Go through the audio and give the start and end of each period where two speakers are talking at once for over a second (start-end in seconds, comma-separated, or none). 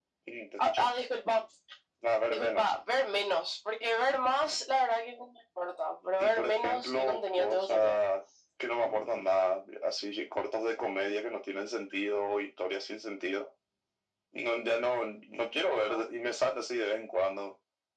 6.2-8.0